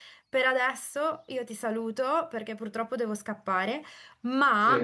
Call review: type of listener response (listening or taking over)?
listening